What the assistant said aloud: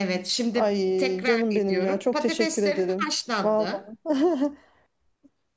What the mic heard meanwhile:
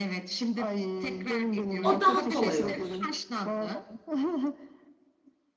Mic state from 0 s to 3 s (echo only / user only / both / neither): both